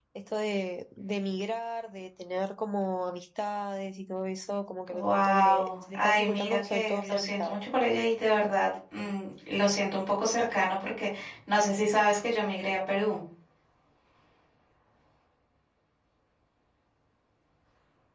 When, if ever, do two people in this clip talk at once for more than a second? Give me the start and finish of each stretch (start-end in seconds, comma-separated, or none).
4.9-7.6